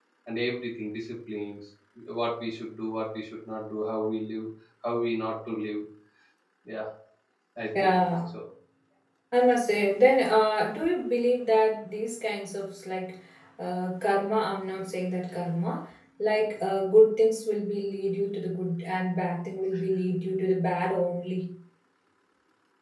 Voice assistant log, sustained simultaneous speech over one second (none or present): none